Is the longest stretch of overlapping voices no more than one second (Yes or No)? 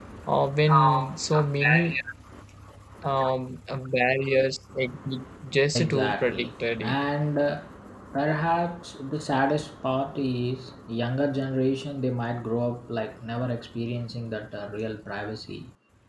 No